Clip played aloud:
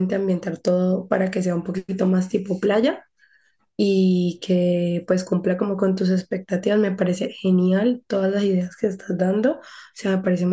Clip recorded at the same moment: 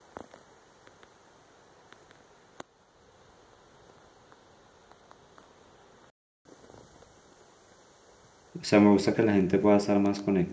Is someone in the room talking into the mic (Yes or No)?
Yes